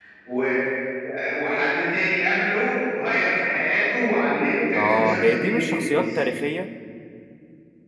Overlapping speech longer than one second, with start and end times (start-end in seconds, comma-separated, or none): 4.8-6.1